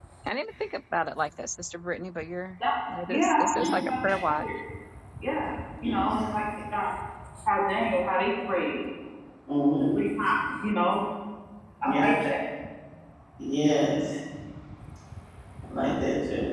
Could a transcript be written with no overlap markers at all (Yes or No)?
No